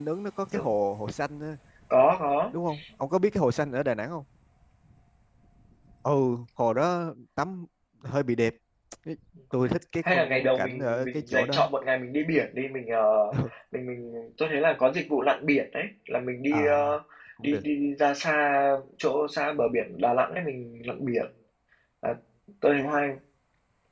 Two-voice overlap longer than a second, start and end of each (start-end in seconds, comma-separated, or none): 10.0-11.6